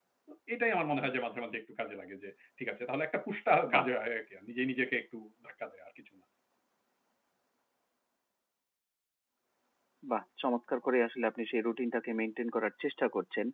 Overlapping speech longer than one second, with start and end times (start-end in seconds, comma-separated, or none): none